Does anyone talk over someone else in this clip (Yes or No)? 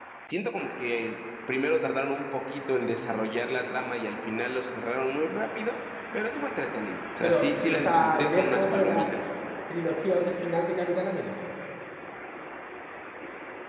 Yes